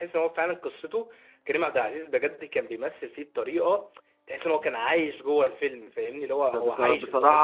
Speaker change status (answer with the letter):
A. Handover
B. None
A